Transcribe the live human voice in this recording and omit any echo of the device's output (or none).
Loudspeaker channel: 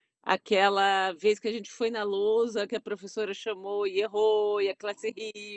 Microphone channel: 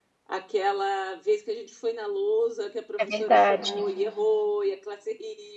É verdade.